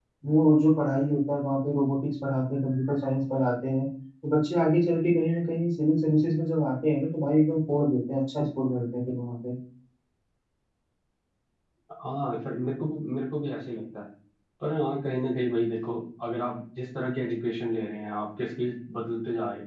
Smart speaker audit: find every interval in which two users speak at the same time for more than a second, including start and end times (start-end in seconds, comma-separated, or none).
none